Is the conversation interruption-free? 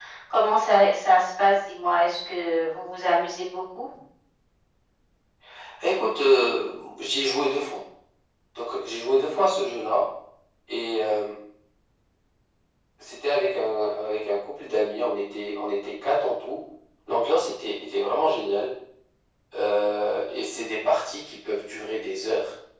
Yes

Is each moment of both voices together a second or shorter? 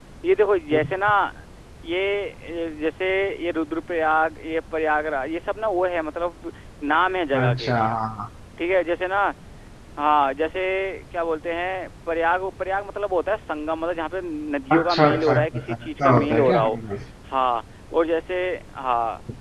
No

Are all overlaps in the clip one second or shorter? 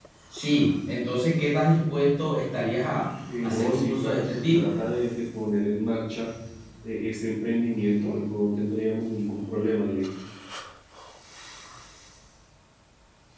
No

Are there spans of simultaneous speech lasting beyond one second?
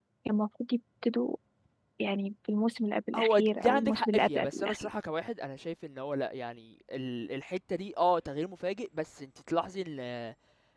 Yes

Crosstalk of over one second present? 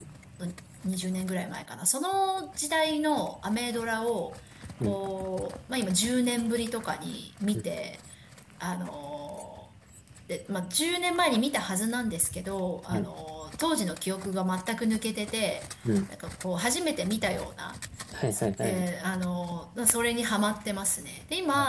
No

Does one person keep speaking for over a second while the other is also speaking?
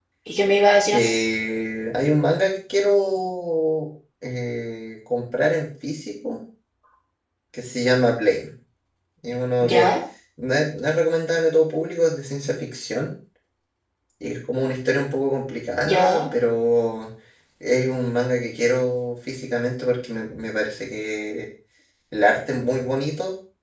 No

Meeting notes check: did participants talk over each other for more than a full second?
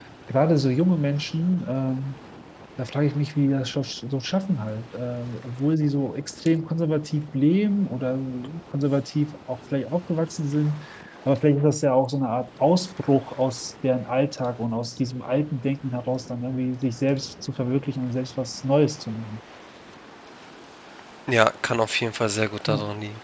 No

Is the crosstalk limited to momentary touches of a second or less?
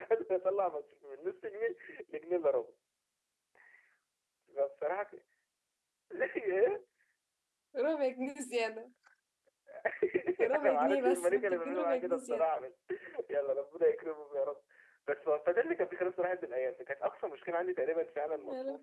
No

